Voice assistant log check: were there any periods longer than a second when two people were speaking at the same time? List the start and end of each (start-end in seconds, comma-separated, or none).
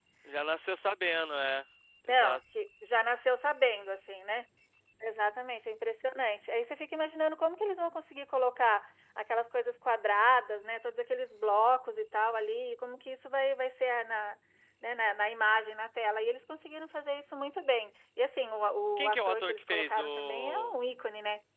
19.0-20.7